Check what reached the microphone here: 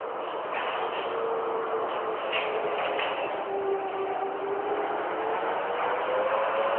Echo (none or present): none